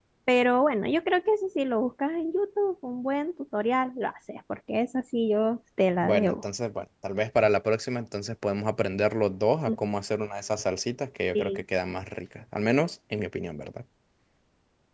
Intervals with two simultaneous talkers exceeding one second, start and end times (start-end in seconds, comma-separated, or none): none